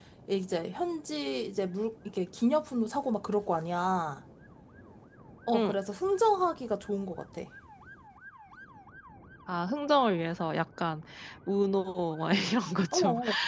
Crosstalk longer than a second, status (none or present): none